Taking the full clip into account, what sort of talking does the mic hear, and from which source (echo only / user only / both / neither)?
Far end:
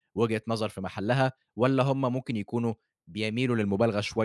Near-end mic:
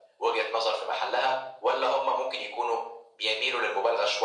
echo only